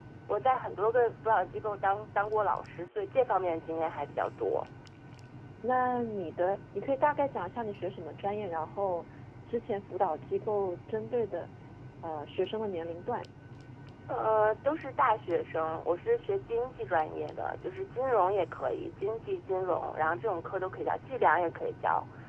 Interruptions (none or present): none